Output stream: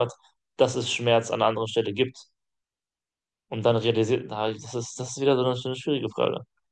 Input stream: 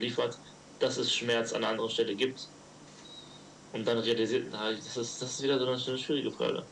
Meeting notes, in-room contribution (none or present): none